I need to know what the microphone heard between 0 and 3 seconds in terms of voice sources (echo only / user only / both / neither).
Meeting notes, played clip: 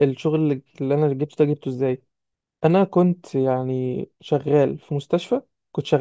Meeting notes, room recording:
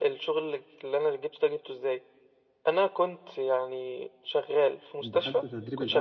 echo only